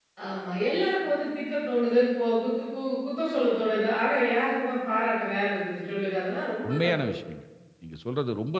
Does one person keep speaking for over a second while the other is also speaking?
No

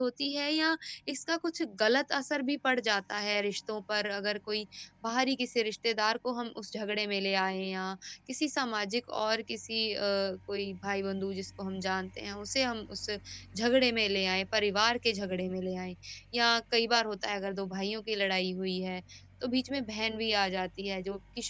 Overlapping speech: No

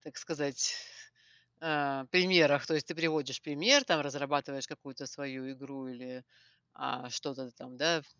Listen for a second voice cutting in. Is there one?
No

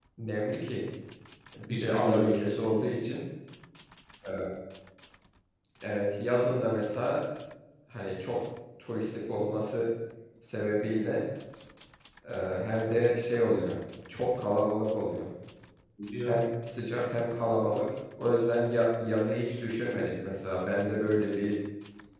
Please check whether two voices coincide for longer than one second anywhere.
Yes, from 1.7 s

